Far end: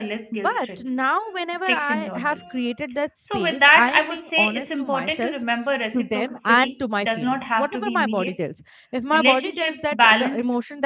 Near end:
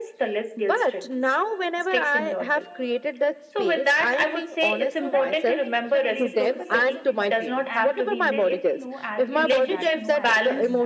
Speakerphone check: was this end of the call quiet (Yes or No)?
No